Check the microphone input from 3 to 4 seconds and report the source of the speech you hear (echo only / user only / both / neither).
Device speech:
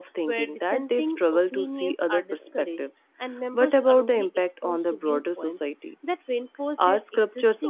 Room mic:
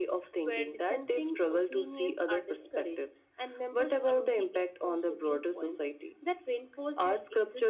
echo only